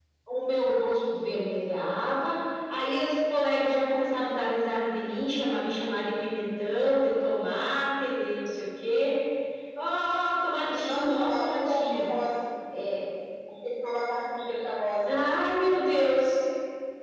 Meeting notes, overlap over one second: present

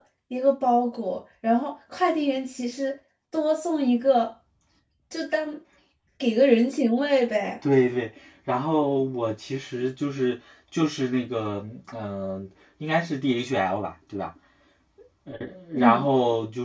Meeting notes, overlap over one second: none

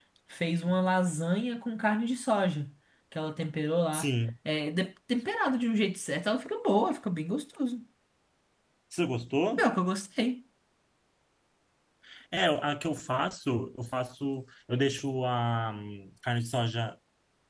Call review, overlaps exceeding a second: none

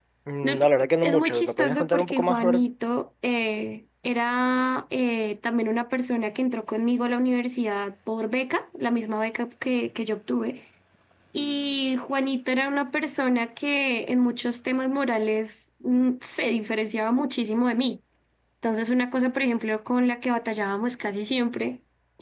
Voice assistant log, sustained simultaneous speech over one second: present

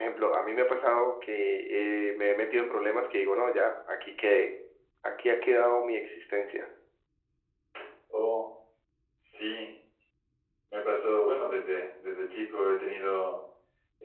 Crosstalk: none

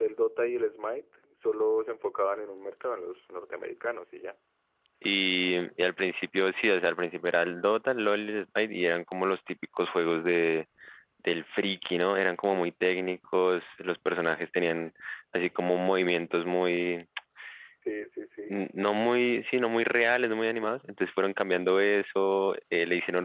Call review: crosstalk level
none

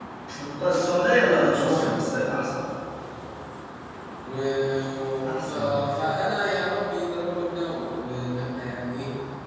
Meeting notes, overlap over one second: none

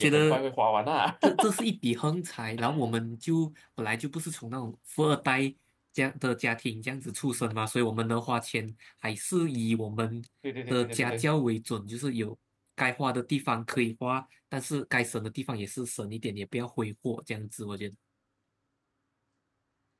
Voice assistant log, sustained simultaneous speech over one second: none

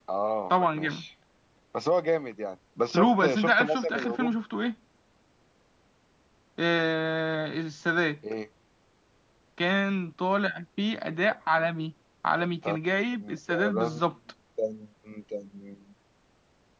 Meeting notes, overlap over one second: present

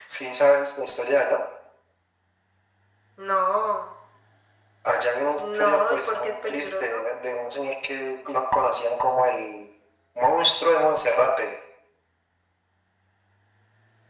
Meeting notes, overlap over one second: present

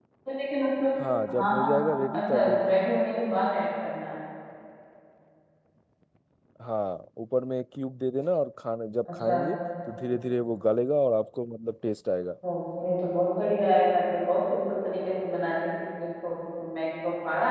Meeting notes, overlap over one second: present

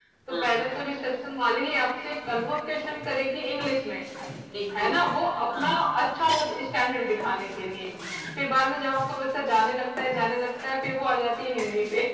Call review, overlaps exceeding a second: none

